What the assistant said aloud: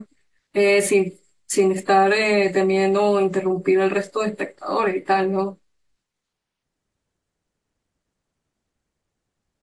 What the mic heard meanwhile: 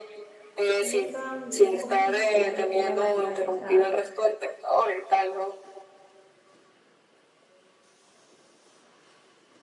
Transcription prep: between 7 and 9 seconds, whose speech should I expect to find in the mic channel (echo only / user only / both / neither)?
neither